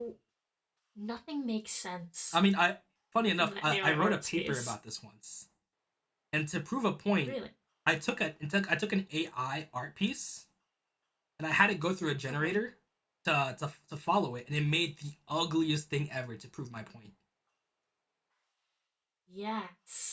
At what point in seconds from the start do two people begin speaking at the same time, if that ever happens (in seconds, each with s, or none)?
3.4 s